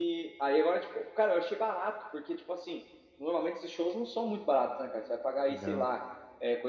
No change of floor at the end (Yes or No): Yes